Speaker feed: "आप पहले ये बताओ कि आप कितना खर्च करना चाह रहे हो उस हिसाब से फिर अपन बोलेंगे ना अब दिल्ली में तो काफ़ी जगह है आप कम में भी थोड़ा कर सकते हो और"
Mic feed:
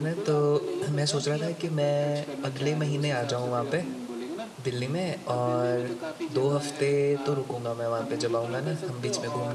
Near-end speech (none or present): present